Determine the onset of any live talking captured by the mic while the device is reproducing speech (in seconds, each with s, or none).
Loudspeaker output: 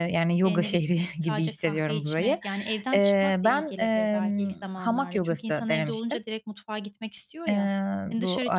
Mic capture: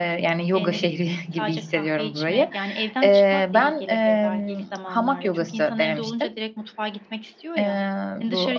none